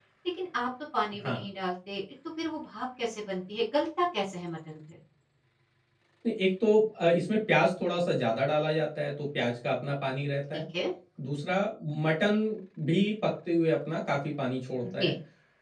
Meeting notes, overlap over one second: none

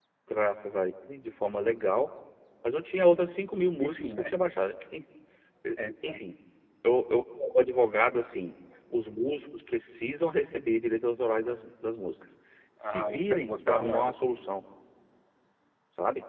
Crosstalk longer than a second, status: present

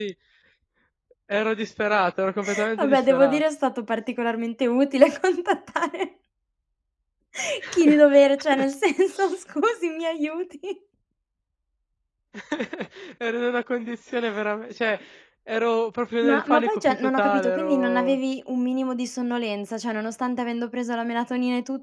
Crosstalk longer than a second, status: present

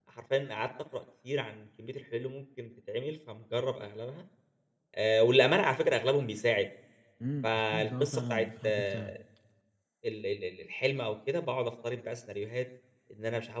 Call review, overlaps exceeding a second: present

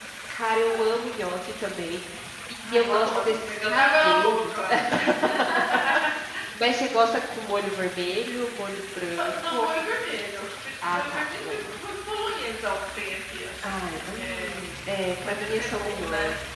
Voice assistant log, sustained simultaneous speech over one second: present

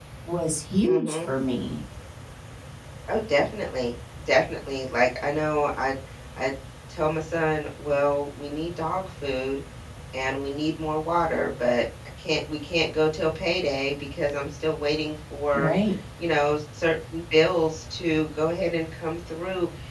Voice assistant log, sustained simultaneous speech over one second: none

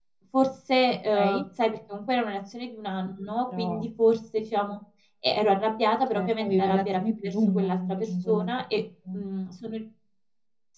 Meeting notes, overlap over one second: present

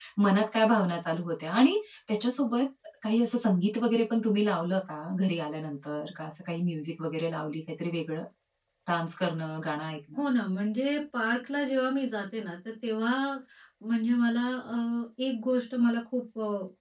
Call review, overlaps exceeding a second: none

